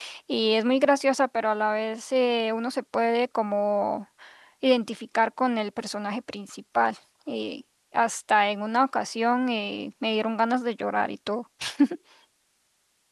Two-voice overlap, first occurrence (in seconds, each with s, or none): none